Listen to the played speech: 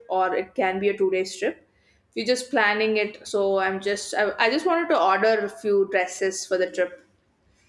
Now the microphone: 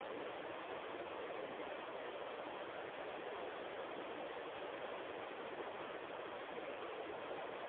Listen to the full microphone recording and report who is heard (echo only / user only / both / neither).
neither